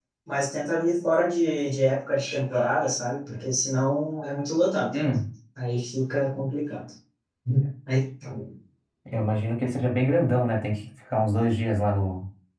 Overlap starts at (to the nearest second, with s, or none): none